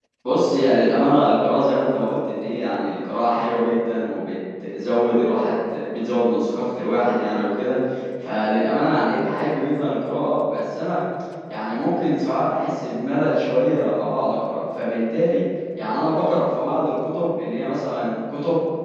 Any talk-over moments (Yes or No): No